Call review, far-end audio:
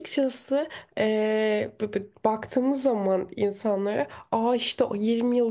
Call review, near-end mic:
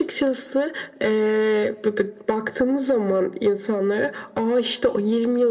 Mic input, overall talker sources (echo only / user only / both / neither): echo only